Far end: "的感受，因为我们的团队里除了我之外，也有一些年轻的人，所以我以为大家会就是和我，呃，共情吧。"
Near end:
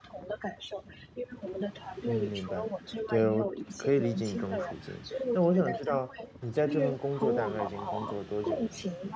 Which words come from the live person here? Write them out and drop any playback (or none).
嗯，明白。对，我可以理解你这种处境，那我想知道，你在这份工作，大概已经工作了多久了呢？